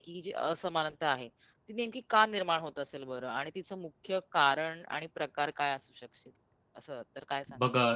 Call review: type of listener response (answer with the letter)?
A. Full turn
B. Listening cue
A